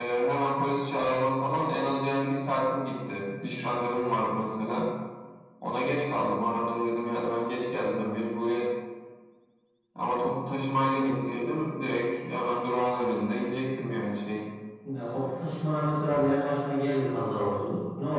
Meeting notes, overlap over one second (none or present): none